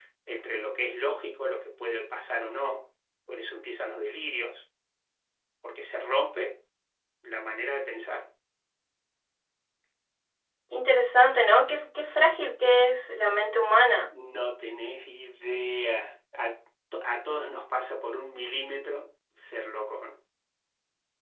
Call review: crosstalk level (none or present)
none